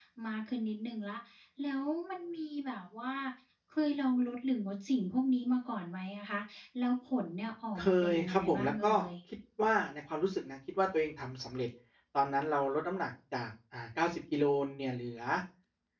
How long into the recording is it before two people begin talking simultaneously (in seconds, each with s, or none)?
7.8 s